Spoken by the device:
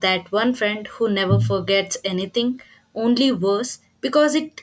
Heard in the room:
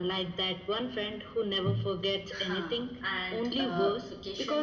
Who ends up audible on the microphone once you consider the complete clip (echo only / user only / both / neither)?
both